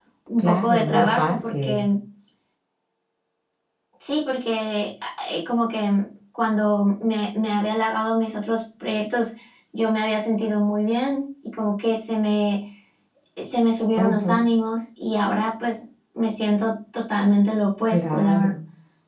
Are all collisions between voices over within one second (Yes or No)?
No